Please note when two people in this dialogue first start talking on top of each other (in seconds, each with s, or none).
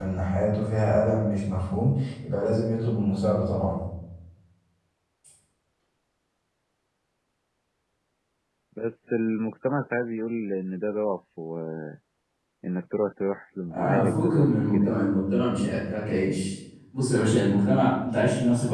13.7 s